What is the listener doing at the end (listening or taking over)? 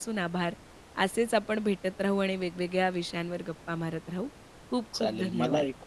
taking over